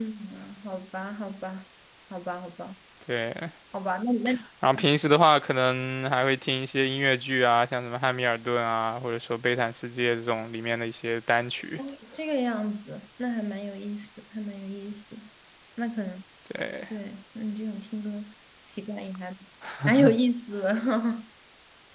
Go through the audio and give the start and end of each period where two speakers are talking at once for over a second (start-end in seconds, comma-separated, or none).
none